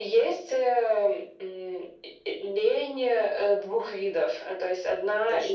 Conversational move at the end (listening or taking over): listening